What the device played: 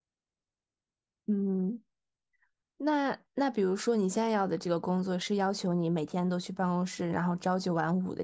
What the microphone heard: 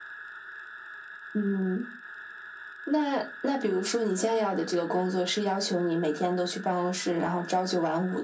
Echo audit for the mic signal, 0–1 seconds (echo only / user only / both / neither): neither